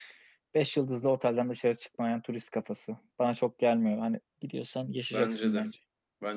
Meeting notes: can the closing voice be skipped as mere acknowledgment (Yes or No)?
No